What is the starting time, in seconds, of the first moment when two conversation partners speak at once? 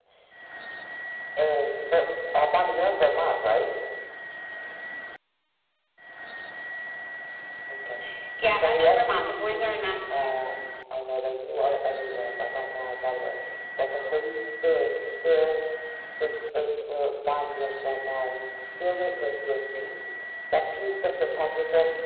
8.6 s

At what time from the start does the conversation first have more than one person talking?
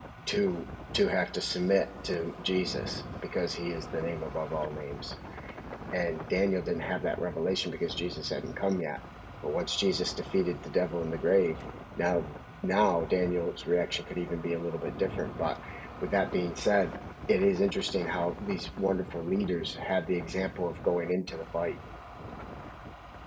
none

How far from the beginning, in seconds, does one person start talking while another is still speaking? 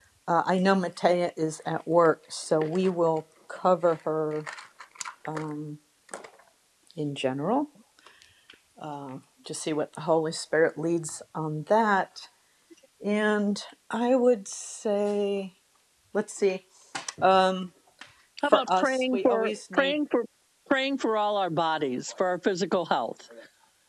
18.4 s

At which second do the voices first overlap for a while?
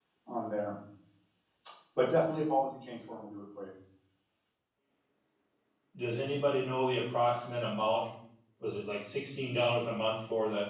none

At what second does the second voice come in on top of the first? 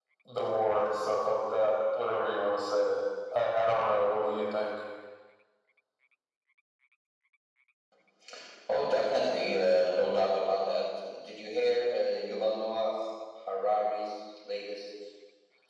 none

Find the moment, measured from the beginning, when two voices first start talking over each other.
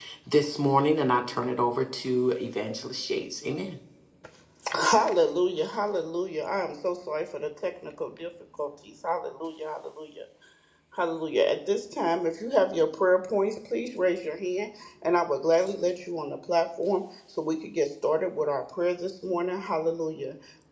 none

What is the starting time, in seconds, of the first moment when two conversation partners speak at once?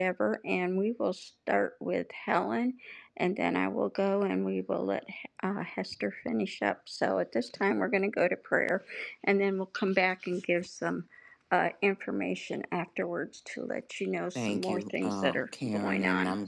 14.3 s

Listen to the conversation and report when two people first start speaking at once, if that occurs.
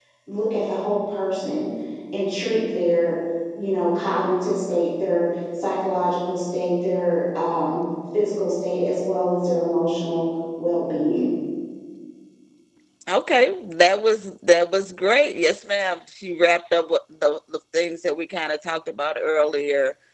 none

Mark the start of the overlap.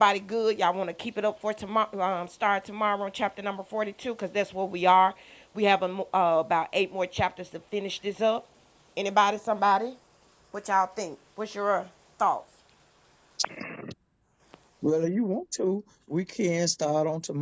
none

